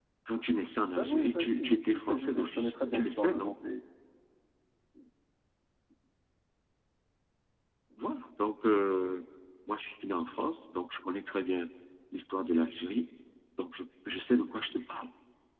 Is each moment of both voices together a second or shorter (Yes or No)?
No